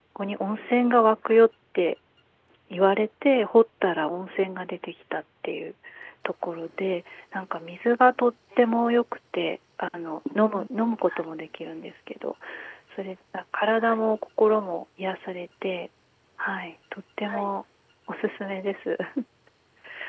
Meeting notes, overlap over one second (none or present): none